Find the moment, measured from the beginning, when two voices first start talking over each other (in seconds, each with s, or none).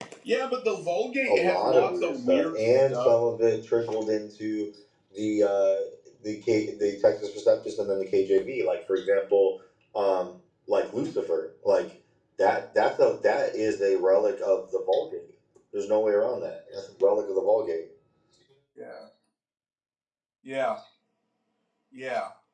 1.3 s